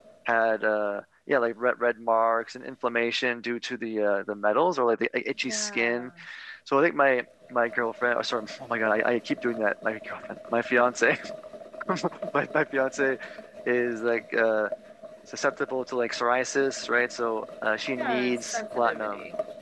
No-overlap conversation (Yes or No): No